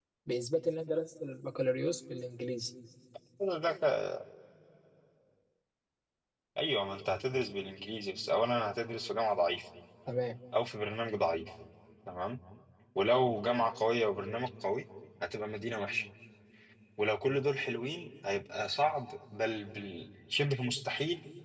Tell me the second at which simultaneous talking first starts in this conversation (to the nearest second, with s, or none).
none